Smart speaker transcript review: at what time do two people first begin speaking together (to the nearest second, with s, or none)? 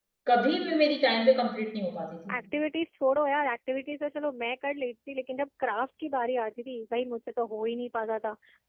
none